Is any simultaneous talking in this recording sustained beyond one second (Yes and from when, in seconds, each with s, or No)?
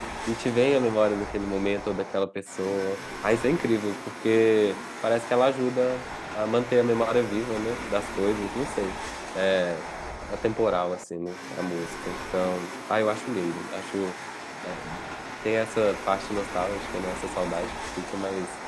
No